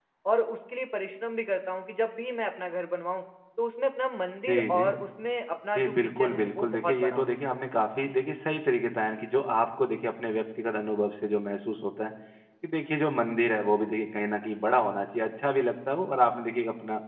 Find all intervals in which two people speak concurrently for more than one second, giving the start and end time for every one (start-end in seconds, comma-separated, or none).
5.8-7.3